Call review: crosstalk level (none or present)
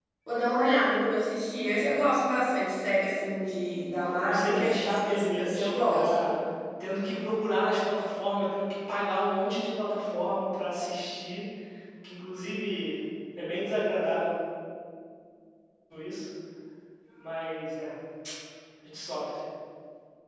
present